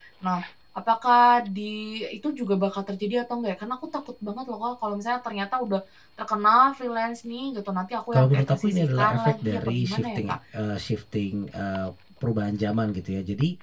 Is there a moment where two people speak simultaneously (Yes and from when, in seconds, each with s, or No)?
Yes, from 8.1 s